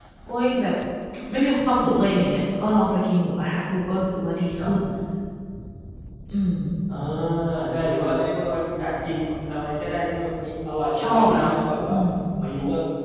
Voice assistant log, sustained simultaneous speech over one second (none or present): none